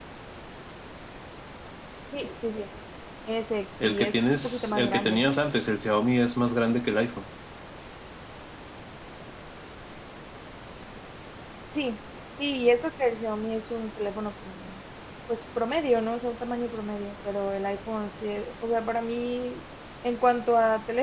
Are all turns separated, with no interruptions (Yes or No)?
No